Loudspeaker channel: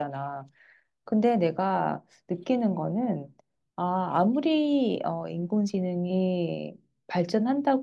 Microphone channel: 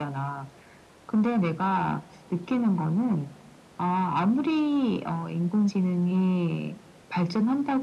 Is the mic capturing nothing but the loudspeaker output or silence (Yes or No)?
Yes